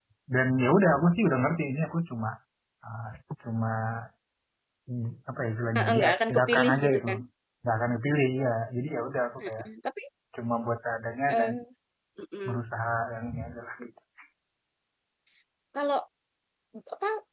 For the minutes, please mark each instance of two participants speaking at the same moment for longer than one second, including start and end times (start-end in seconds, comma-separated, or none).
5.8-7.2